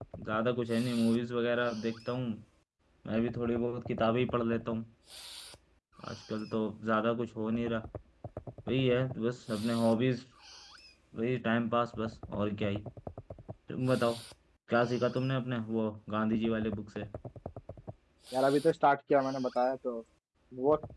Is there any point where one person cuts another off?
No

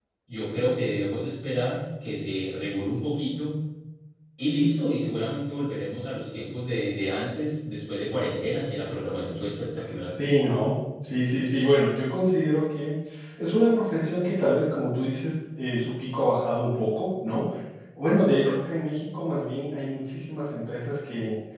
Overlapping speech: No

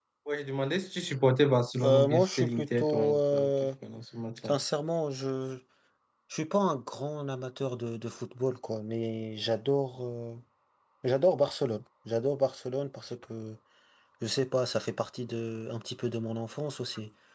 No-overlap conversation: No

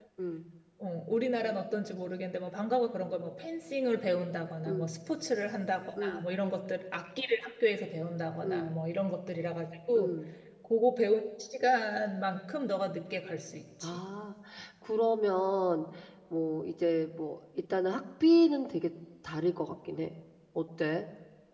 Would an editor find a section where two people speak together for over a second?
No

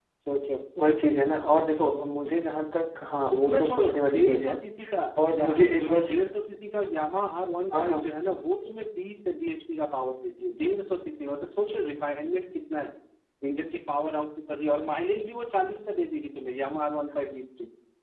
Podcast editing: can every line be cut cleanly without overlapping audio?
No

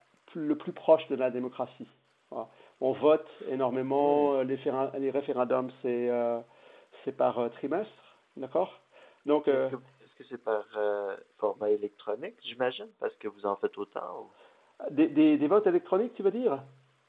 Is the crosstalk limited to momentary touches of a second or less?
Yes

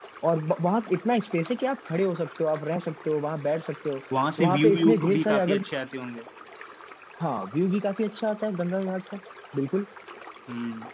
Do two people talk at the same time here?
Yes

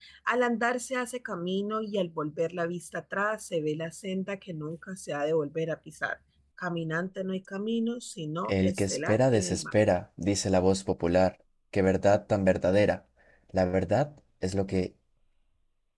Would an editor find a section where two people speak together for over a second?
Yes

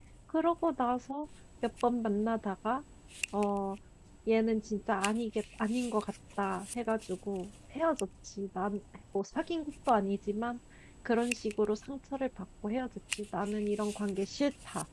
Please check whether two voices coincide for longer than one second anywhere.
No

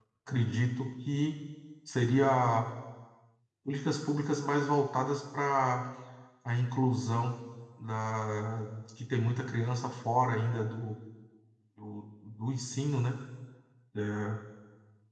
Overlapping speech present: No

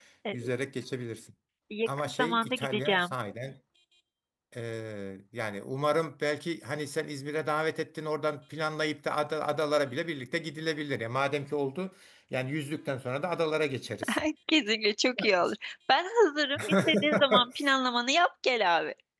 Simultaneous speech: Yes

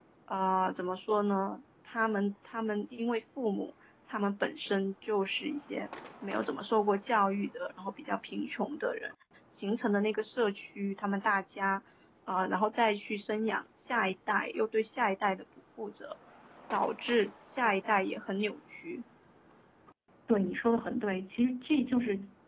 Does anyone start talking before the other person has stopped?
No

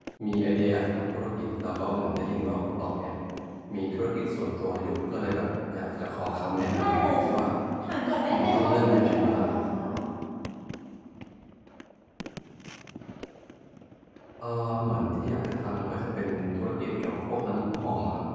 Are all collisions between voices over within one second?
No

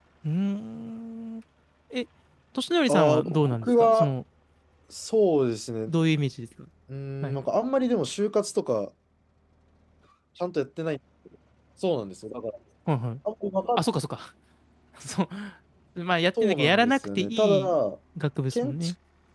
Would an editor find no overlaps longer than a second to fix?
No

